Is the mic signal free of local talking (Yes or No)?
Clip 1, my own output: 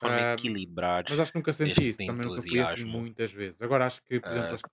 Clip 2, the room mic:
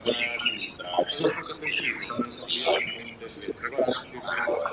Yes